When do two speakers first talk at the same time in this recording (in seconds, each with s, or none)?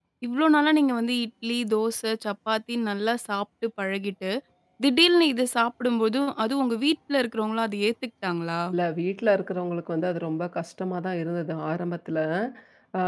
none